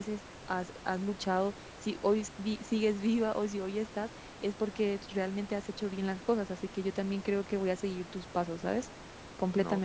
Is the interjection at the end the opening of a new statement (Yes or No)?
Yes